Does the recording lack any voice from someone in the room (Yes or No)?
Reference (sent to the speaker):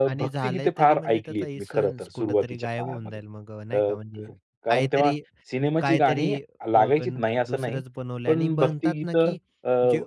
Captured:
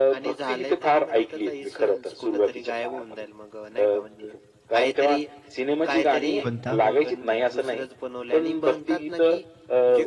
No